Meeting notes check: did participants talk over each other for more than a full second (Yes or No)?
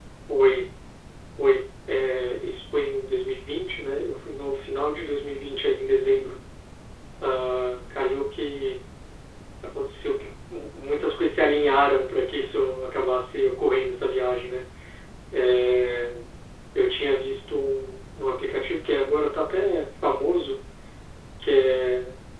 No